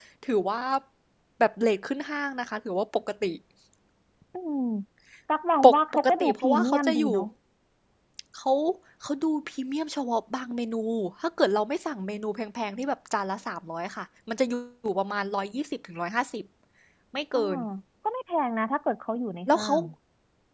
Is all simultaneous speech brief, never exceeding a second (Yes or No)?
No